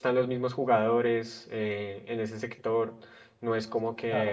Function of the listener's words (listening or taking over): taking over